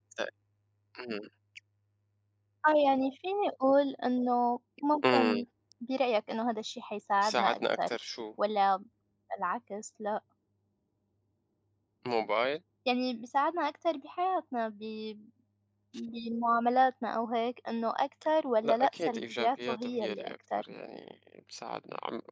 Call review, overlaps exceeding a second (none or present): present